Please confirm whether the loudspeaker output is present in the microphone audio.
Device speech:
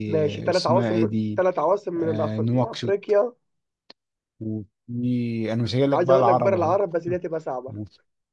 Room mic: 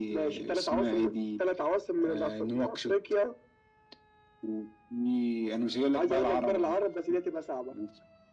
Yes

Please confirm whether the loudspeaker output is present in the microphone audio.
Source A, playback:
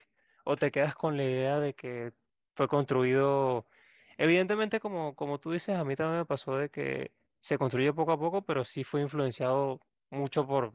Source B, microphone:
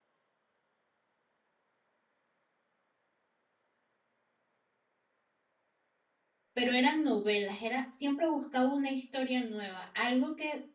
No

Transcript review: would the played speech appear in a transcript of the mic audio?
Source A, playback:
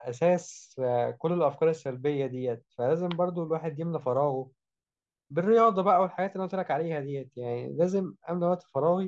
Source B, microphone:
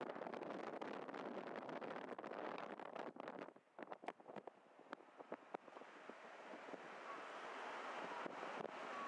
No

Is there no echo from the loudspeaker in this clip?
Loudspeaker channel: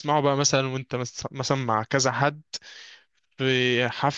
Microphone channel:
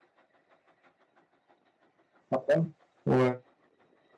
Yes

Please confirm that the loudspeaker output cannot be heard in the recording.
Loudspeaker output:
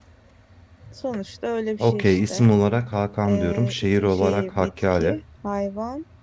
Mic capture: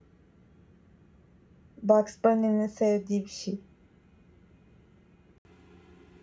Yes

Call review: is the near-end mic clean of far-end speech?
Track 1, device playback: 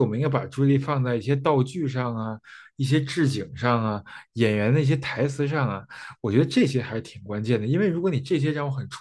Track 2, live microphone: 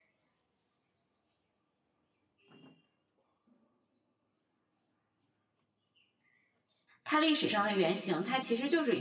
Yes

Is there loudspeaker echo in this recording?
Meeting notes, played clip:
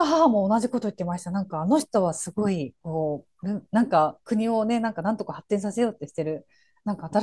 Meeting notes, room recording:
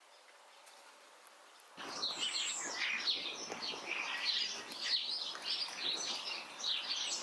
No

